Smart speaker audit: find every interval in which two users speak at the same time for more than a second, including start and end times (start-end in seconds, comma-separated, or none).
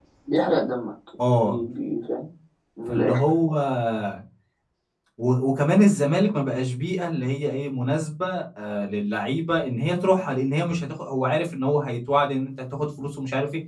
none